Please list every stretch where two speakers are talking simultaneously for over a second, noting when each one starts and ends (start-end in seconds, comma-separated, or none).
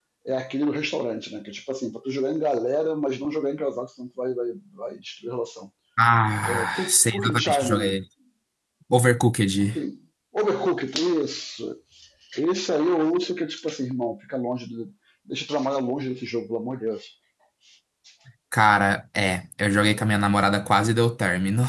6.5-8.0